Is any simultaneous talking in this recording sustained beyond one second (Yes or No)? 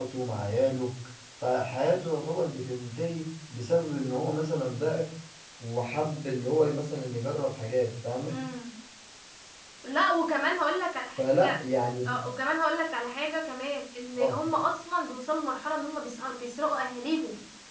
No